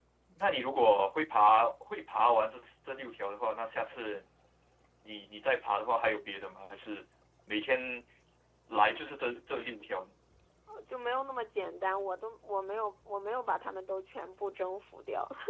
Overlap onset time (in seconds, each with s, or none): none